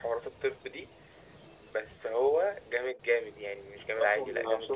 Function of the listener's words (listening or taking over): taking over